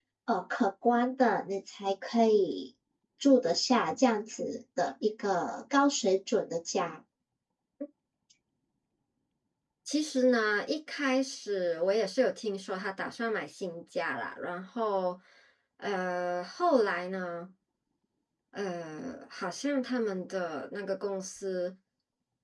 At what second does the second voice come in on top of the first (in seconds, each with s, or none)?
none